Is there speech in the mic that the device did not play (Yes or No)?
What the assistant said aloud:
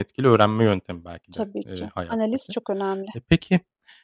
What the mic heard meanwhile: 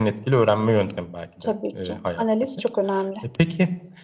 No